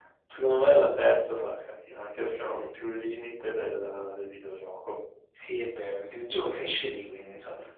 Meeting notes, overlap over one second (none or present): none